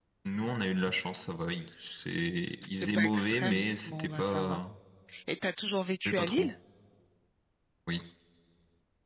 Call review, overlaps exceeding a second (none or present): present